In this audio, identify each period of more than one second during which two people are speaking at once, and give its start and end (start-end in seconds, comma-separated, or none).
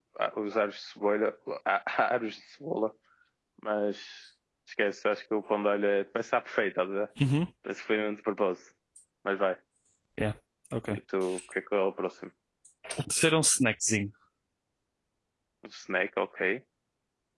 none